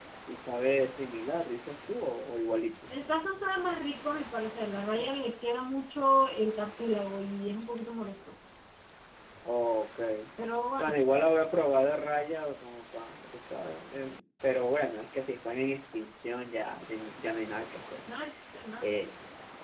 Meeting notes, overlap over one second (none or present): none